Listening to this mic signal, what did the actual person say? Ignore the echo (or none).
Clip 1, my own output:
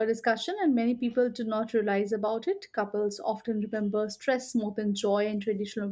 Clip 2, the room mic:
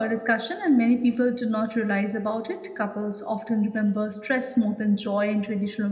none